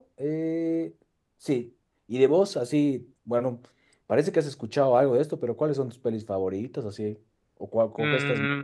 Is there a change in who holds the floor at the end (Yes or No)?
Yes